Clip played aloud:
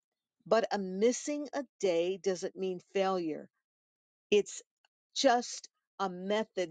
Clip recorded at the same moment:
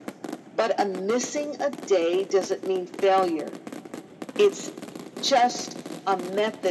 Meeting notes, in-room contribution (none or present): none